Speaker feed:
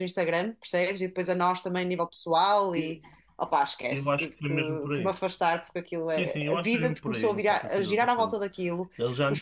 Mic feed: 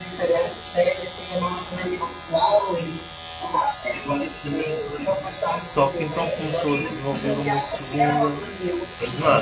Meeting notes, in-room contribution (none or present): present